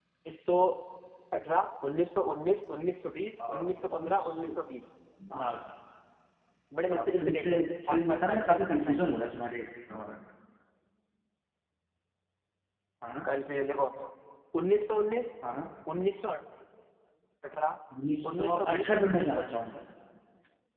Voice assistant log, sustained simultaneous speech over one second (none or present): present